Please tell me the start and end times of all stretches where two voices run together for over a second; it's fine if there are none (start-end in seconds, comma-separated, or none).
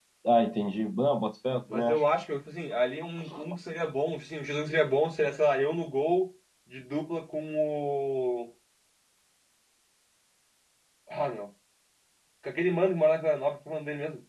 none